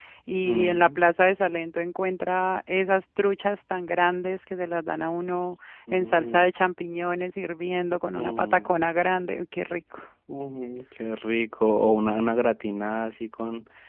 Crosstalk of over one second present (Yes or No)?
No